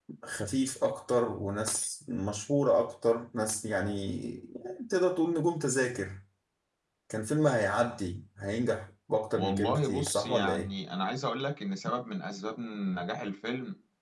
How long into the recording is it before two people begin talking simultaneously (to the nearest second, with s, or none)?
9 s